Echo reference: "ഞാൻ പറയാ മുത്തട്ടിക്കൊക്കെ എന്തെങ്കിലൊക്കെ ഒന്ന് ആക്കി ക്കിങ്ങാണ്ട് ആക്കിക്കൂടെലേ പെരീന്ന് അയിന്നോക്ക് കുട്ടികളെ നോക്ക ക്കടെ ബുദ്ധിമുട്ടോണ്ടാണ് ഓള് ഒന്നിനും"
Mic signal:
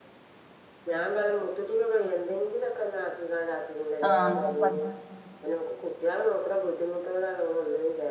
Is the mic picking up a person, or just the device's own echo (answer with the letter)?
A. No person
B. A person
B